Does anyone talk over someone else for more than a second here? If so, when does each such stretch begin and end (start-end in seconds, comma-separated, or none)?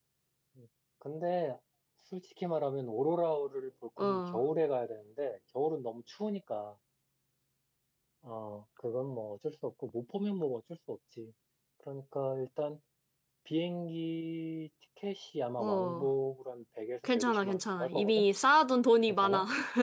17.0-18.2